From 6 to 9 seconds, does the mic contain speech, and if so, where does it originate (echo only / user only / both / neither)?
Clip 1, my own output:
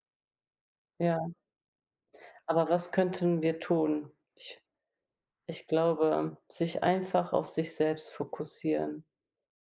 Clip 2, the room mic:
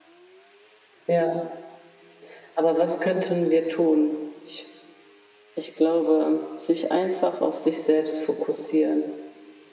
echo only